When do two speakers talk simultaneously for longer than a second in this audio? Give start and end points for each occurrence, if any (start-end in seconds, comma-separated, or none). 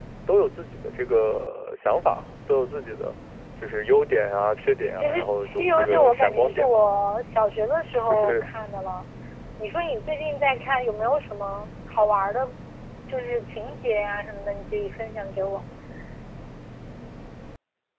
5.0-6.8